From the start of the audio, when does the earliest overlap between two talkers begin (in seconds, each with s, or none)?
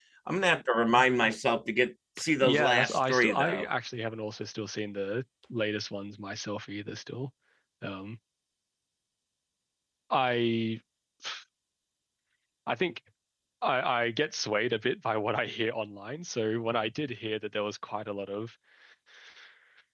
2.2 s